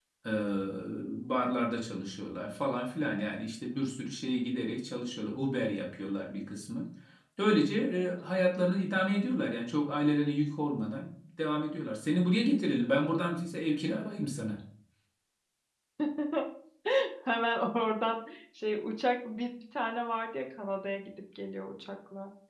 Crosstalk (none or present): none